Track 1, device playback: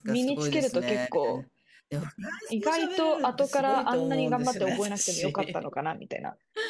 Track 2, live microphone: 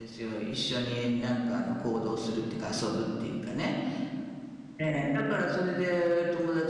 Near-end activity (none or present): present